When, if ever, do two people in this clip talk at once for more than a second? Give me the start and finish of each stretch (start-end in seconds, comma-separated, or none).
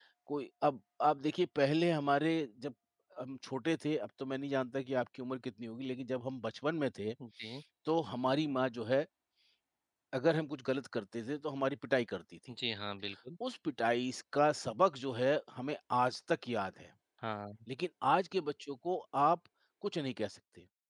none